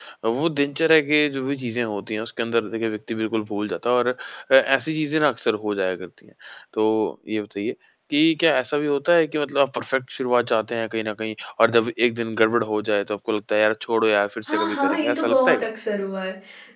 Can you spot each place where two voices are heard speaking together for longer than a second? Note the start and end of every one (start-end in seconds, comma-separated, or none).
14.5-15.7